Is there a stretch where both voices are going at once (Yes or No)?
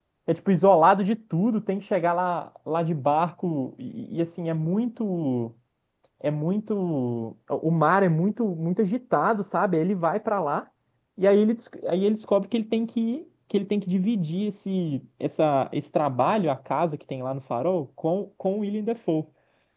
No